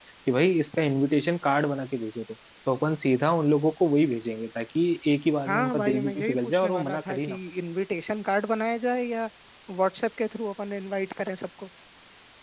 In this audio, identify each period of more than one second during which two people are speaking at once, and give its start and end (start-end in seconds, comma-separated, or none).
5.5-7.4